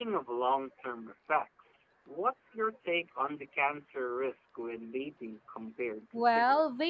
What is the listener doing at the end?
taking over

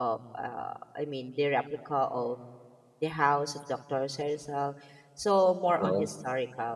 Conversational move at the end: listening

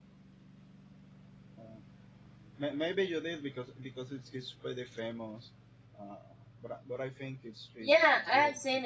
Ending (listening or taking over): taking over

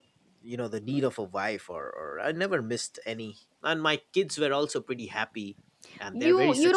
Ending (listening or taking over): taking over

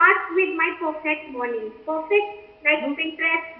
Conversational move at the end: listening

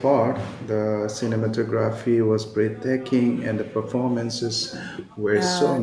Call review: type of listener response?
taking over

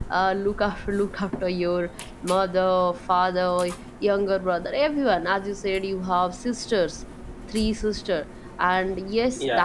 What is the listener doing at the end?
listening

